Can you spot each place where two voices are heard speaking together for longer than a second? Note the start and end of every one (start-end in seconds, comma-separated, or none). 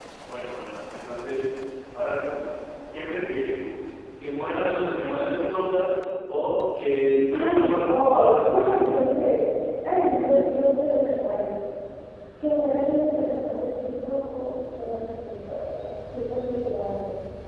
7.3-8.9